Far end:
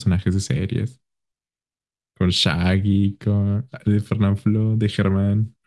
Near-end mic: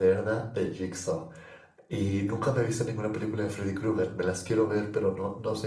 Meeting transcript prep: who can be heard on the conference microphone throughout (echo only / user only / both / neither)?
user only